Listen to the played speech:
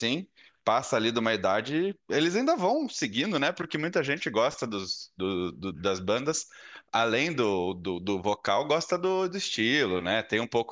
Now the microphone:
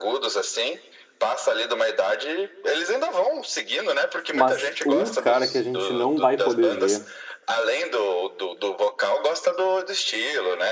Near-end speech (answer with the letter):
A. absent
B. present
B